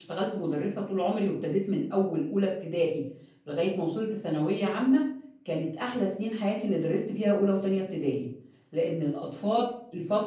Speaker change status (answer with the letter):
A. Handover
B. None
B